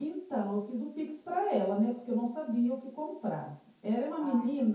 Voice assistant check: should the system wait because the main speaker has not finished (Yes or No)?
Yes